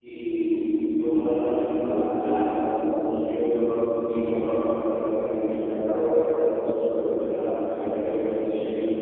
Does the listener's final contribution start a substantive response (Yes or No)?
Yes